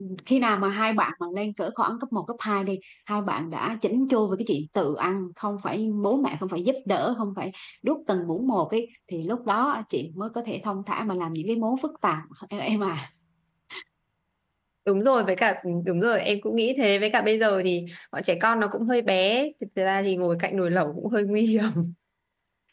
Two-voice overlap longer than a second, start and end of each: none

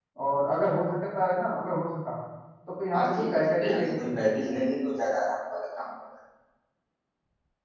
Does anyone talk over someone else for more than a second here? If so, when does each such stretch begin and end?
2.9-4.4

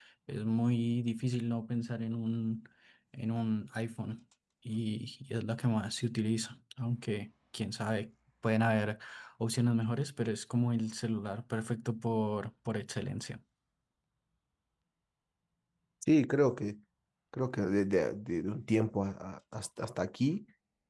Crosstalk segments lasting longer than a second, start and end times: none

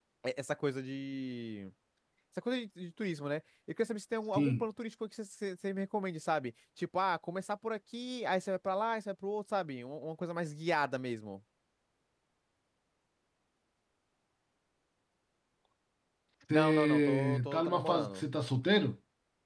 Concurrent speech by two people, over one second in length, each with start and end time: 16.5-18.2

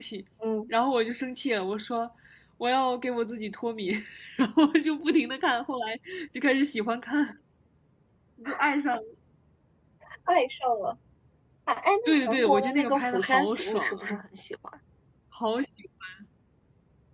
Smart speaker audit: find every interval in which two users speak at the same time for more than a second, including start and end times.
12.0-14.2

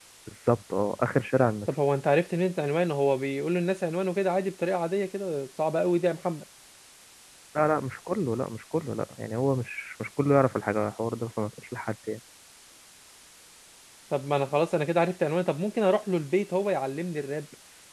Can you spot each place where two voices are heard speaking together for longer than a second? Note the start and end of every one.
none

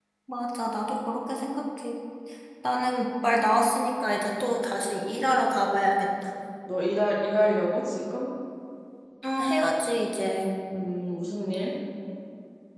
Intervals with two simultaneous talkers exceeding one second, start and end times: none

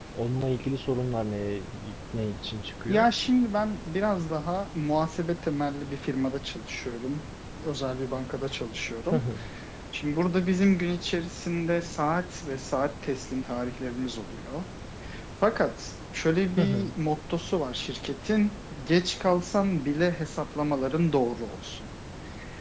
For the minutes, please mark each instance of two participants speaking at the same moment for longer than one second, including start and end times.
none

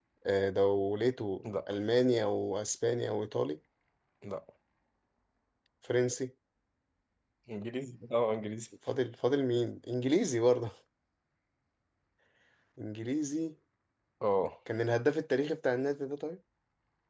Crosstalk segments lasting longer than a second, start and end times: none

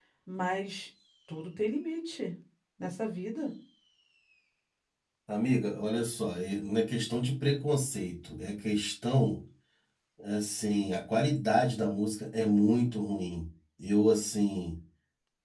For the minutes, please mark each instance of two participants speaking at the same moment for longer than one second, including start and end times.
none

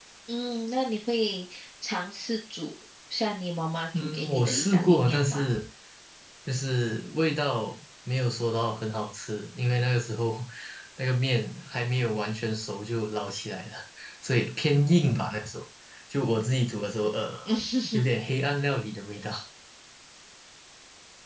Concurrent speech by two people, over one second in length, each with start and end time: 4.0-5.5

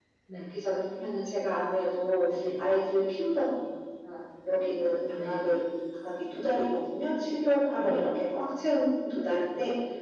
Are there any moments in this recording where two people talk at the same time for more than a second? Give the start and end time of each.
none

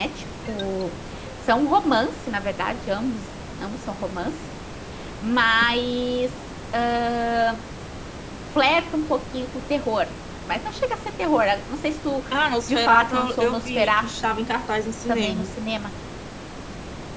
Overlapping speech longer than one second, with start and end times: 12.7-14.1

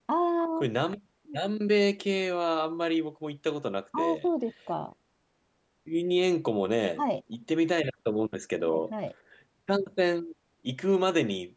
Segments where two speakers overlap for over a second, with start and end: none

